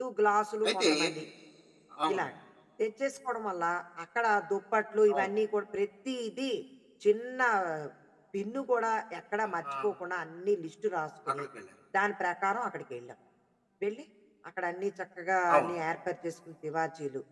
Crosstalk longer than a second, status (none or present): none